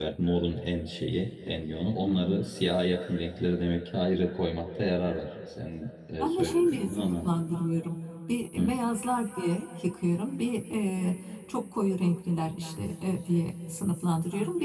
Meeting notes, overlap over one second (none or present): present